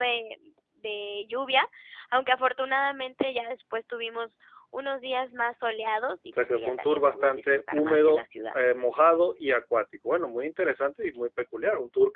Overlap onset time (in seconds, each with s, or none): 6.4 s